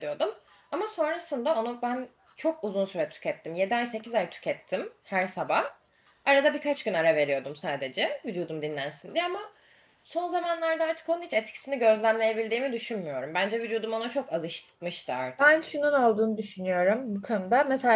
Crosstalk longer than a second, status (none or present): none